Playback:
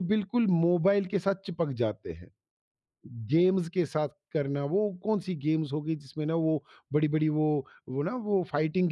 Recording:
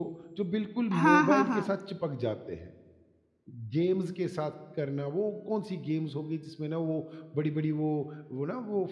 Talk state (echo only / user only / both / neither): both